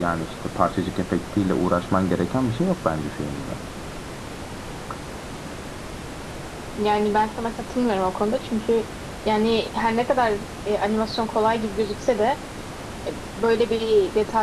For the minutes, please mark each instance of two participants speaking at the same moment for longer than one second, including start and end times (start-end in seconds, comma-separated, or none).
none